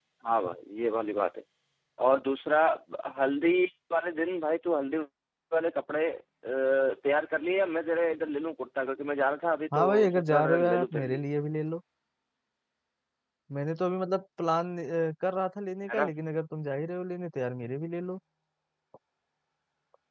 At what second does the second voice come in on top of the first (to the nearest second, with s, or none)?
10 s